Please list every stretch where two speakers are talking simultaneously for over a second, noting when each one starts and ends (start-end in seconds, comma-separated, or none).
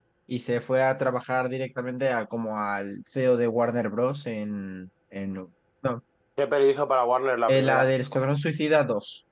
none